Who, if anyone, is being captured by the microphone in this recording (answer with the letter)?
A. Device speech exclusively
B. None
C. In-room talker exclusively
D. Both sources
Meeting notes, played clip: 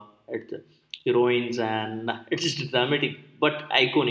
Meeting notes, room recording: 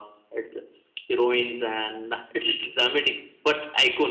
A